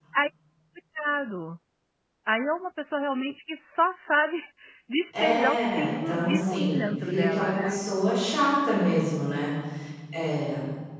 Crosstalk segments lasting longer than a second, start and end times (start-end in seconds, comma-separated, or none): 5.2-7.8